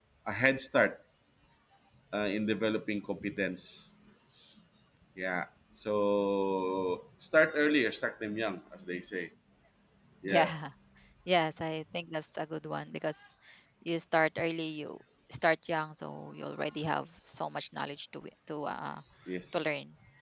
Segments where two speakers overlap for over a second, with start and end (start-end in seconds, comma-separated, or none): none